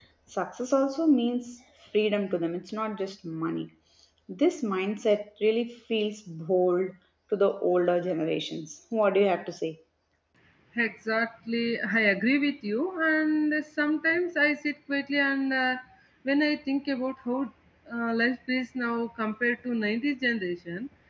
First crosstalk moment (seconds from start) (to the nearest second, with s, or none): none